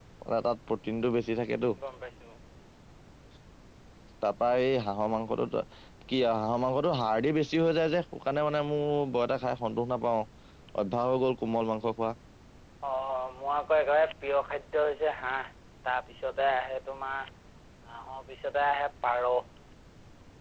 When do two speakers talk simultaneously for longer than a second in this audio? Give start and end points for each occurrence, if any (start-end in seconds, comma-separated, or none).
none